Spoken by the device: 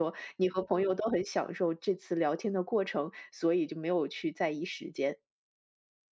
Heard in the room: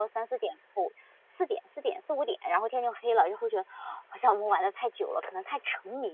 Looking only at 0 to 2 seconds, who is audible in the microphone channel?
user only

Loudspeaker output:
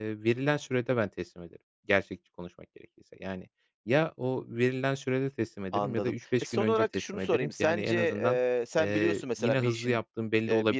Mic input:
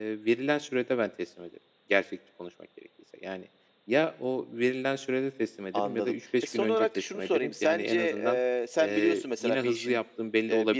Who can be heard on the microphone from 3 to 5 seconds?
echo only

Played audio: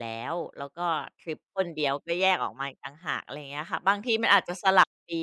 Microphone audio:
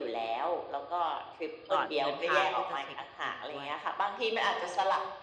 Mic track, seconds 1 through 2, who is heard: both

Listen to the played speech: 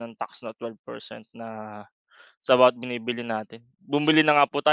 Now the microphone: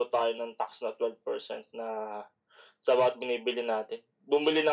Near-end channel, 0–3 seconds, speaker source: echo only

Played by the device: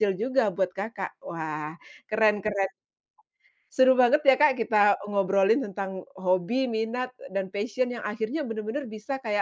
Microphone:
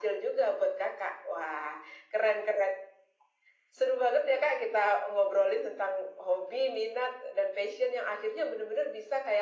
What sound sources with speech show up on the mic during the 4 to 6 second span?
echo only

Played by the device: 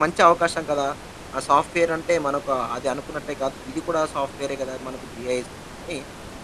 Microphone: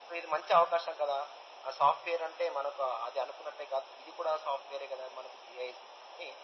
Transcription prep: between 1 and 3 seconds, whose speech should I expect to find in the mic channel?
echo only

